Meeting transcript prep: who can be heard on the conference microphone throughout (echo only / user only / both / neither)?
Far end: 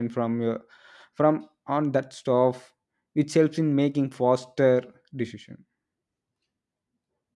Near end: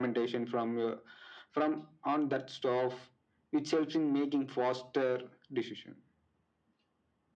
echo only